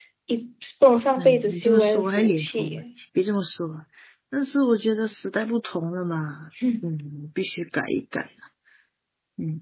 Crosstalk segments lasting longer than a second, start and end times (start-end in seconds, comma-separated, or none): 1.2-2.8